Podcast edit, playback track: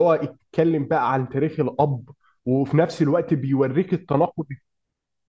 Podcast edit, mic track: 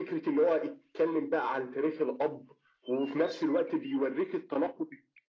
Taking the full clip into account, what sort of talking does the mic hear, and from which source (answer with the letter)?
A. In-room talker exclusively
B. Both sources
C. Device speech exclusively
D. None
C